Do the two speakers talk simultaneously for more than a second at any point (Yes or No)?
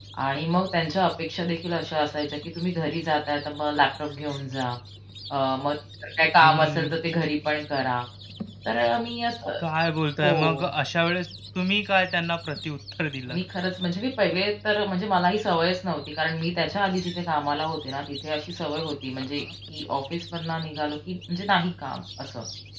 No